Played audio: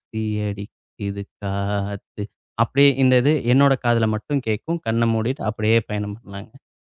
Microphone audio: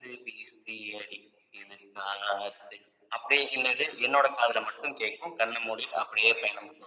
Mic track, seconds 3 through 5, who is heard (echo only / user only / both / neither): echo only